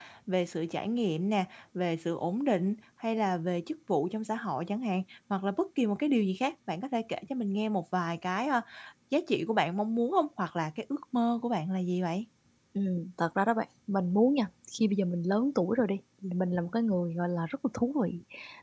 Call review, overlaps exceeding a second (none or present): none